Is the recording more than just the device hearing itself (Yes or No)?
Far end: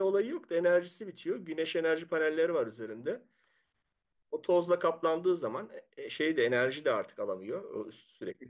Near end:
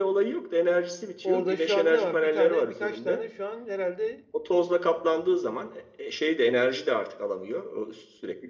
Yes